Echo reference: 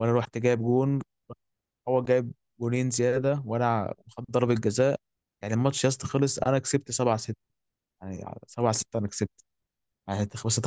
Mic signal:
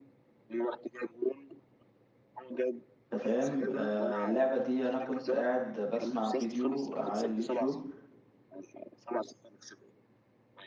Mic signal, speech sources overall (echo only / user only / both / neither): both